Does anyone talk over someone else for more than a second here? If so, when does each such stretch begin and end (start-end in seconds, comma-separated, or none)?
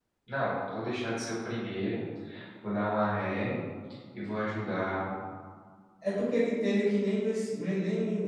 none